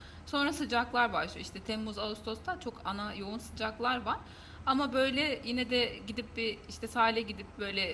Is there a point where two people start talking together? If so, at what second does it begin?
none

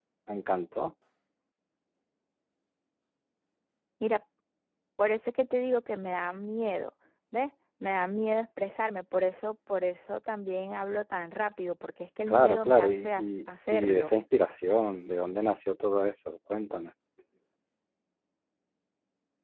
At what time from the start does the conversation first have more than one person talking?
12 s

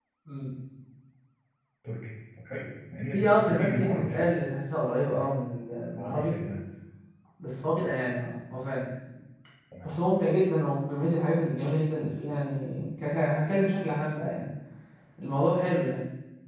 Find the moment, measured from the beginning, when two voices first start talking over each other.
3 s

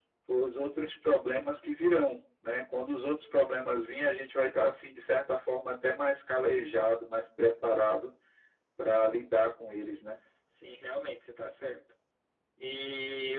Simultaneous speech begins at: none

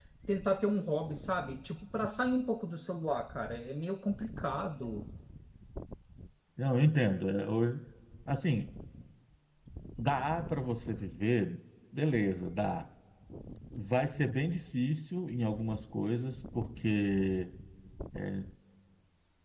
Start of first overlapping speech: none

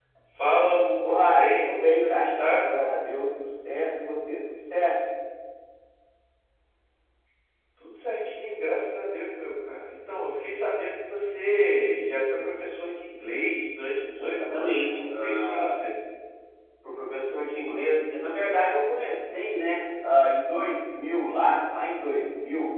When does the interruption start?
1 s

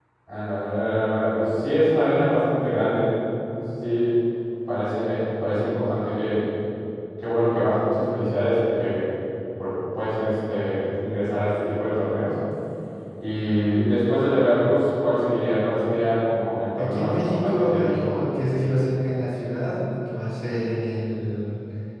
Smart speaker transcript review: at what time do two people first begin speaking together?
17 s

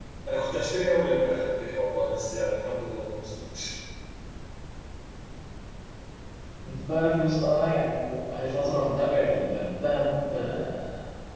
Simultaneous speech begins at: none

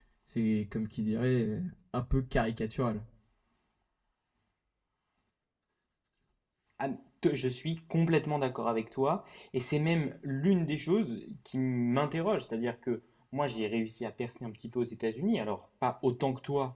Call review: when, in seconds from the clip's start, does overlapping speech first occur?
none

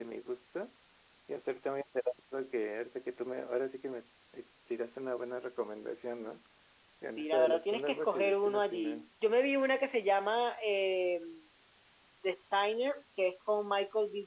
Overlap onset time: 7 s

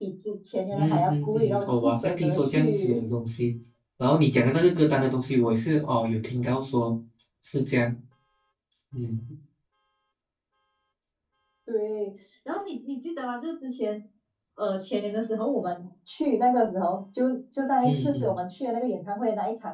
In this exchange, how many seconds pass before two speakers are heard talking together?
1 s

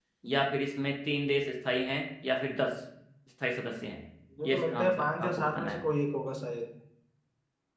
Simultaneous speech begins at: 4 s

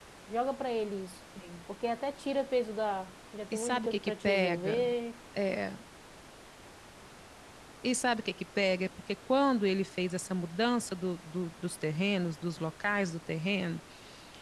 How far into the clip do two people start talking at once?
4 s

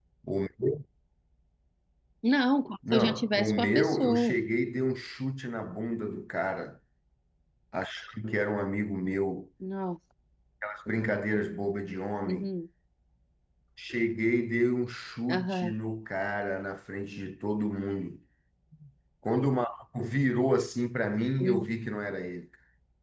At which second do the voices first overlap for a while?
3 s

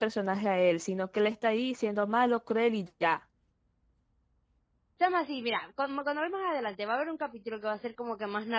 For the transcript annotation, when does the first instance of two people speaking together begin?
none

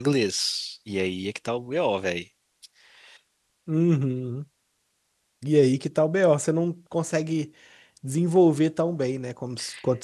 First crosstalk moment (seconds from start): none

